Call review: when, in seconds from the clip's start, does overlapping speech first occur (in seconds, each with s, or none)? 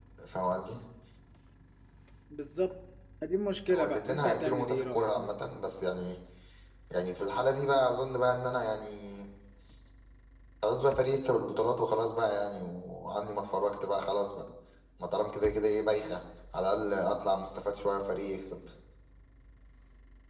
3.7 s